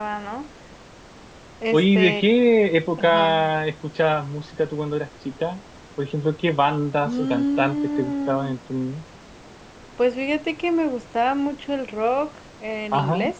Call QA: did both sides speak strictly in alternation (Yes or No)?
No